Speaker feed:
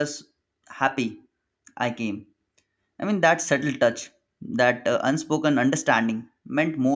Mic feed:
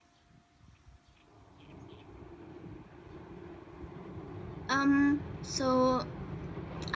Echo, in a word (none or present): none